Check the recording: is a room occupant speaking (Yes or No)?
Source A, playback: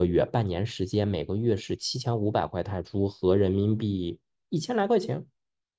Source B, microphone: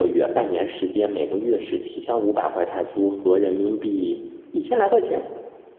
No